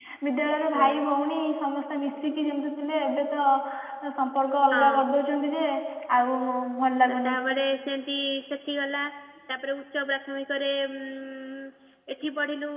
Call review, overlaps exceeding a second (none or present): none